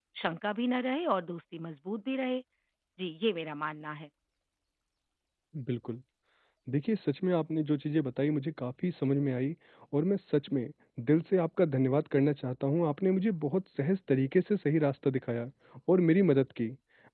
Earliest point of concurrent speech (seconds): none

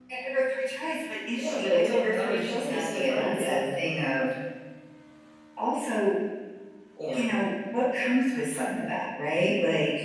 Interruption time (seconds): 1.4 s

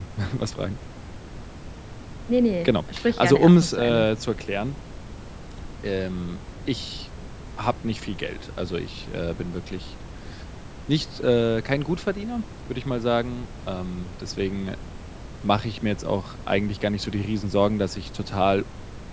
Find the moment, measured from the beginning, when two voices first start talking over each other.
2.6 s

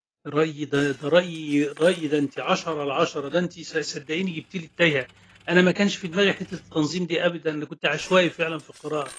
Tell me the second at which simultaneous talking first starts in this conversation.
none

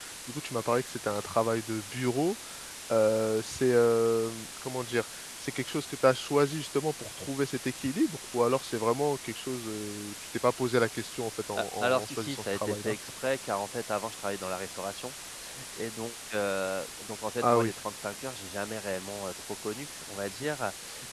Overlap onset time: 11.6 s

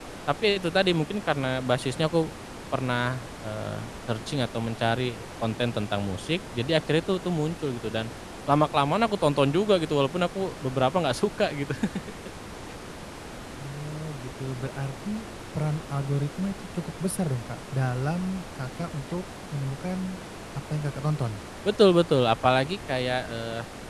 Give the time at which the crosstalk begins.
none

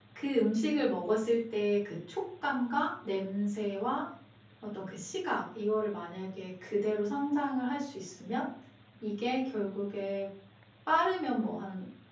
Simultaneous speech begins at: none

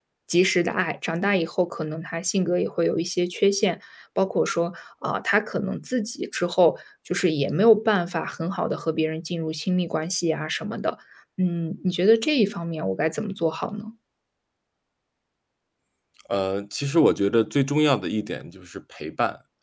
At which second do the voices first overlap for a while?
none

